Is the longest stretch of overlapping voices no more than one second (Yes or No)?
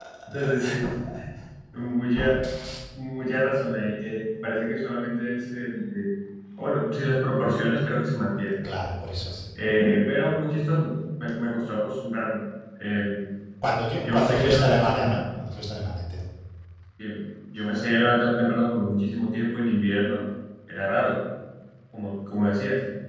No